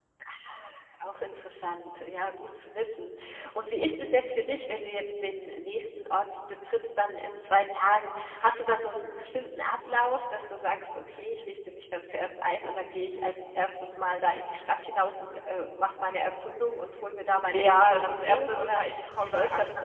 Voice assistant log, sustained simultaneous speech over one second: present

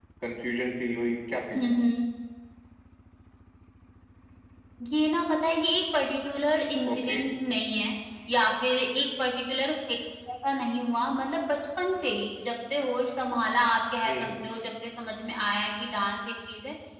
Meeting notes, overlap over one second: none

